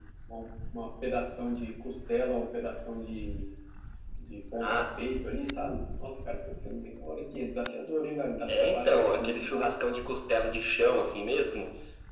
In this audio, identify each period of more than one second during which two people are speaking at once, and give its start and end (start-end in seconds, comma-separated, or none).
8.5-9.7